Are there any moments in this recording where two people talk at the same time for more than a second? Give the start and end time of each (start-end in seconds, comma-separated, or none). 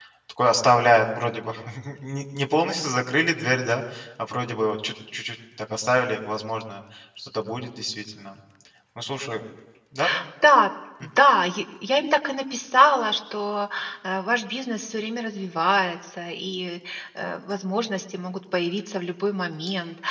none